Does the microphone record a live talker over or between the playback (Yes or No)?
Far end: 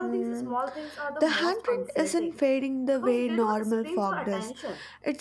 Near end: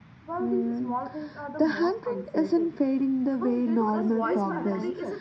Yes